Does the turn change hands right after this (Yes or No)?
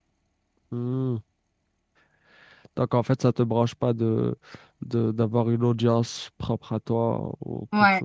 Yes